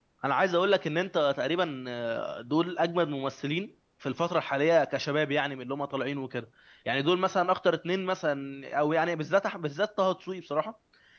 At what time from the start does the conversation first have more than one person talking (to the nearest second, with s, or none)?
none